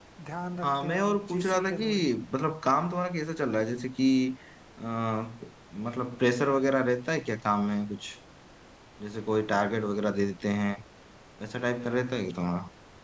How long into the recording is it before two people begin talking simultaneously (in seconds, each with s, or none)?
0.6 s